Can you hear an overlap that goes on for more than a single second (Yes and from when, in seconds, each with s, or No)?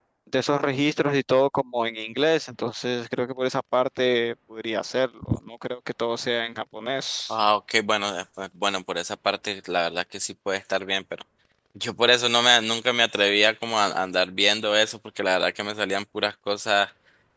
No